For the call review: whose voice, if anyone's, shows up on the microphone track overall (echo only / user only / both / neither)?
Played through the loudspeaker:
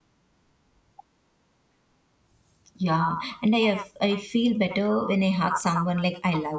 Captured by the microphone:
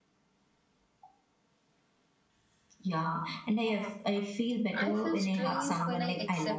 both